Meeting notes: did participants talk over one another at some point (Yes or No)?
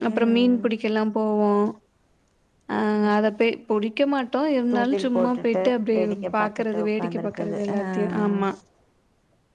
Yes